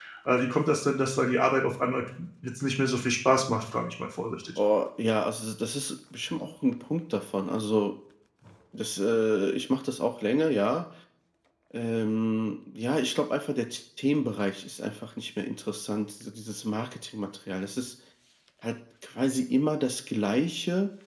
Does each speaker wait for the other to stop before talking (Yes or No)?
Yes